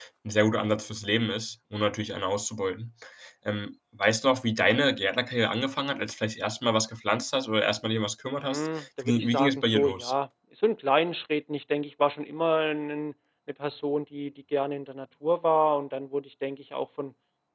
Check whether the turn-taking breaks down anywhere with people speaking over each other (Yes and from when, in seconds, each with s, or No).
Yes, from 8.4 s